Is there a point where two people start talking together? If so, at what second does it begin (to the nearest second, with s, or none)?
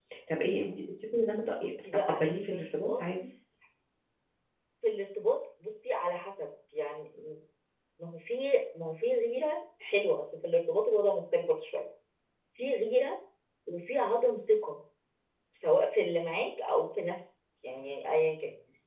2 s